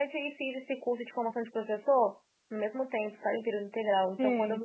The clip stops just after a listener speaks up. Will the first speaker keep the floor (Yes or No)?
Yes